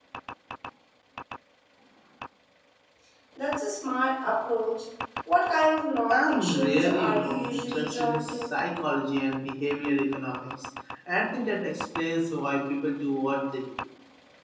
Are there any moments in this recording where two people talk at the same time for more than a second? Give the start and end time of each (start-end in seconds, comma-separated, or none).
6.1-8.5